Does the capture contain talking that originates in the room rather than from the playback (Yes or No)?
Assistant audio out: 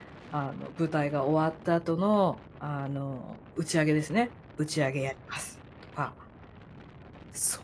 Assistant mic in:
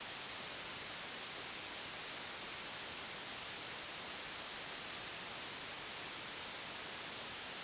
No